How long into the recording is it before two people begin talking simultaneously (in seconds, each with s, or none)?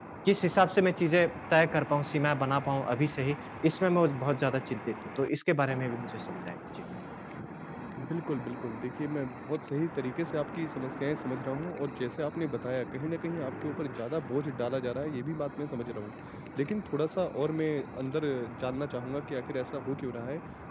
none